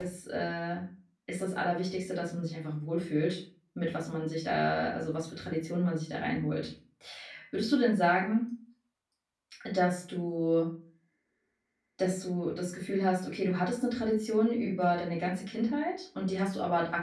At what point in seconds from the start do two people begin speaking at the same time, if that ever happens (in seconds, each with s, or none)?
none